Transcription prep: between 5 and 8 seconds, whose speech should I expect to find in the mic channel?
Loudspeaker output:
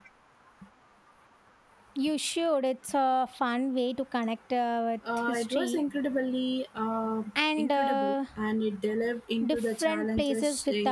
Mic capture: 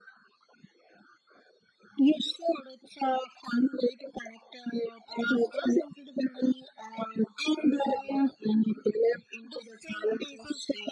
echo only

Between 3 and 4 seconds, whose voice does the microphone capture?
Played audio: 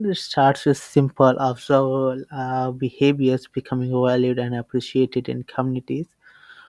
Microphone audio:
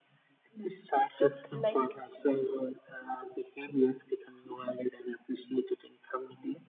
echo only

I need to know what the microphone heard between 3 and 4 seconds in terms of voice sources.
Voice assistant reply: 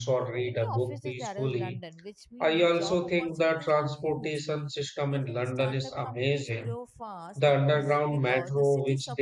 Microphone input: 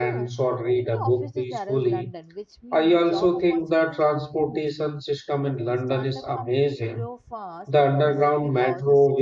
echo only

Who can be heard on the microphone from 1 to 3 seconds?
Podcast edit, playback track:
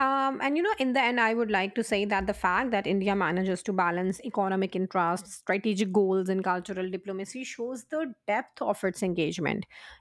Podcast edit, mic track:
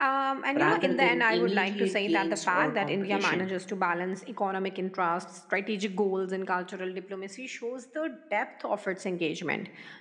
both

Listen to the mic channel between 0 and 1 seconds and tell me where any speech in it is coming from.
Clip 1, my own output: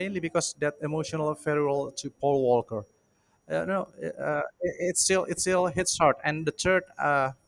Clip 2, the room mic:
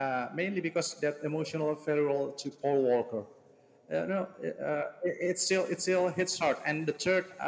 echo only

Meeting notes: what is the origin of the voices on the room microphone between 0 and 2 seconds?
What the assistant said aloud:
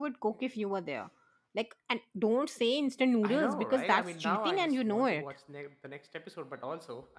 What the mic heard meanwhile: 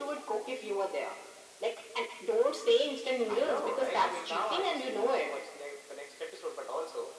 echo only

